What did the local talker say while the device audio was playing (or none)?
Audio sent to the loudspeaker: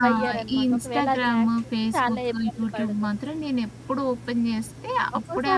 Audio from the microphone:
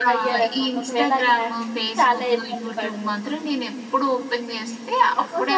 none